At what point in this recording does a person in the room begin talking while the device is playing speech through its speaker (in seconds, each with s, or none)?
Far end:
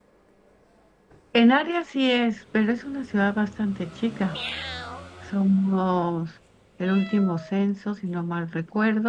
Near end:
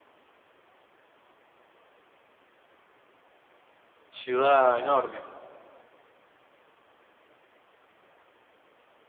4.1 s